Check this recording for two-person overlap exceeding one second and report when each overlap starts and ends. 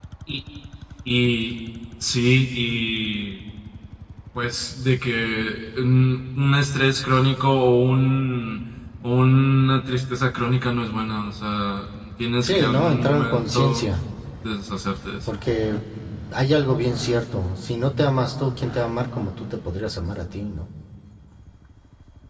12.4-13.9

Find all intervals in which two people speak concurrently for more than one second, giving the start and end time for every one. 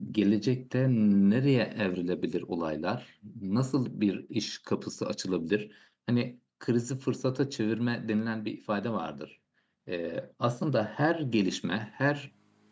none

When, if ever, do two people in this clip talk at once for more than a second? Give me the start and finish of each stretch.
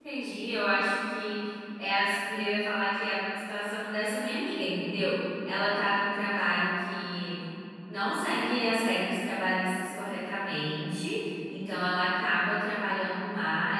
none

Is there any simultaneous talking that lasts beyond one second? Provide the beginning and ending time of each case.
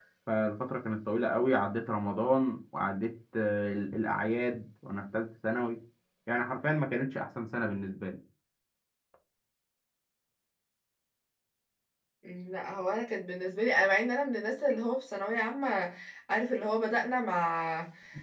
none

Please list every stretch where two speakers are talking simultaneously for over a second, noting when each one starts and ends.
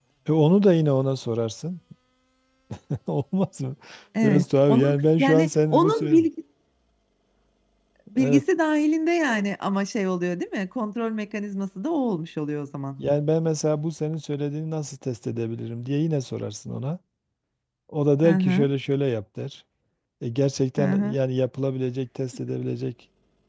4.2-6.2

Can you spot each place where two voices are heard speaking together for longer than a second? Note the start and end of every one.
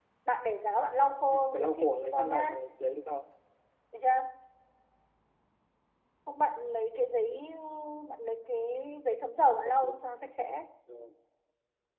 1.1-2.5

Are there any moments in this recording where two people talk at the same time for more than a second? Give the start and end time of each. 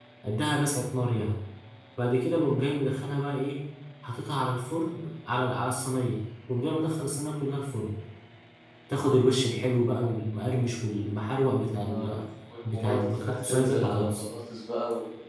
12.7-14.2

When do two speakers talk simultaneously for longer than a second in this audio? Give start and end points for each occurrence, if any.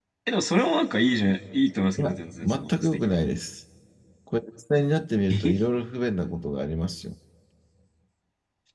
2.0-3.2

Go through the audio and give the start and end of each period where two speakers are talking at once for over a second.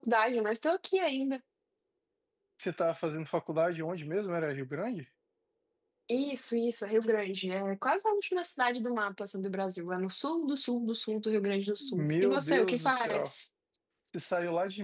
11.8-13.3

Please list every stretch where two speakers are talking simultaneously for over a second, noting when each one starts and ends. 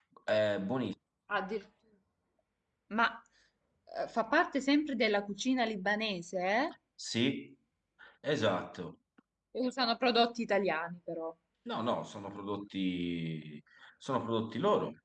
none

